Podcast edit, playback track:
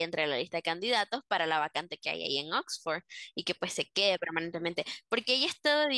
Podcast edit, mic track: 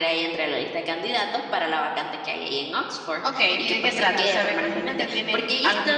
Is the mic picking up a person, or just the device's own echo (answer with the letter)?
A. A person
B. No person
A